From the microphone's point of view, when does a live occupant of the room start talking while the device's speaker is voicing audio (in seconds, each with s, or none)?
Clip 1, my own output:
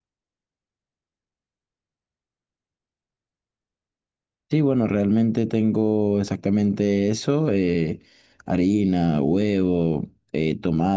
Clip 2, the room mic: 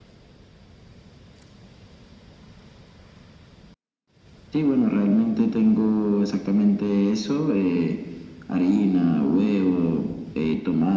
none